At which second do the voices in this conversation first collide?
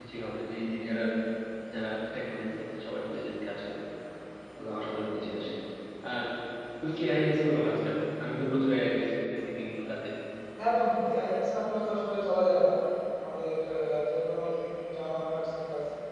none

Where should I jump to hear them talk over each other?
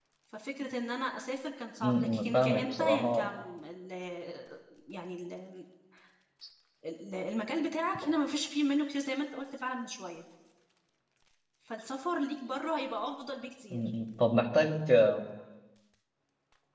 1.8 s

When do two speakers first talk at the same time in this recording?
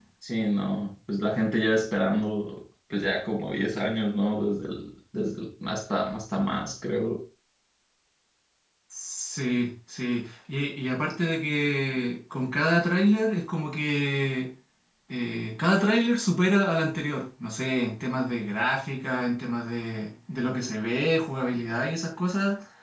none

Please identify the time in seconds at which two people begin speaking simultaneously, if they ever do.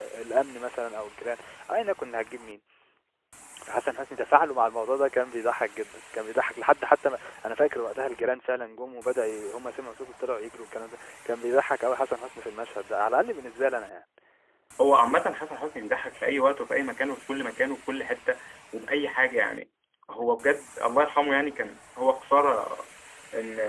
none

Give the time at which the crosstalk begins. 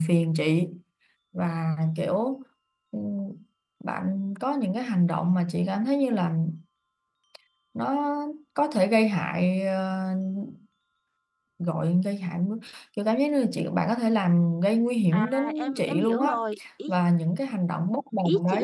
15.1 s

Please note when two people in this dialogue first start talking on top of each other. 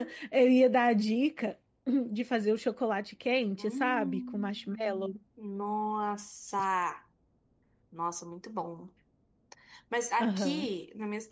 3.6 s

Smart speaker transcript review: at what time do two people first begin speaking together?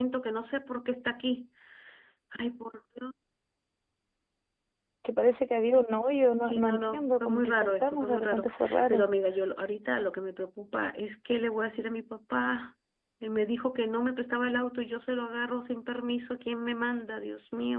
6.4 s

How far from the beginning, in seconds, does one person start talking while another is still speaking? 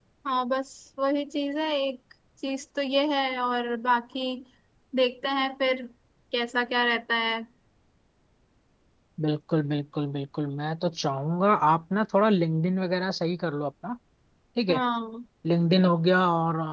none

